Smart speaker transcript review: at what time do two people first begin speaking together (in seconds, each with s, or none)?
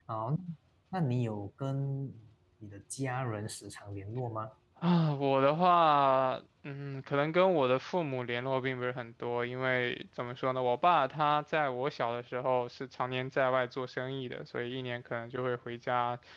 none